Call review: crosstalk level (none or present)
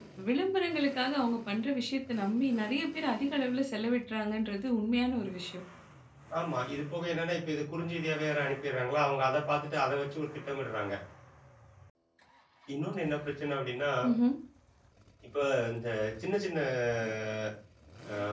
none